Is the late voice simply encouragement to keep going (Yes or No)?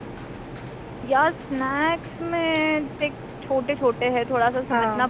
Yes